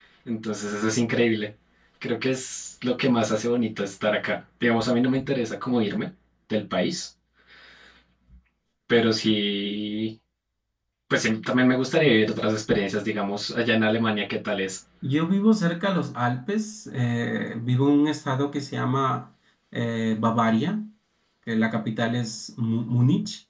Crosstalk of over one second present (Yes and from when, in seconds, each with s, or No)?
No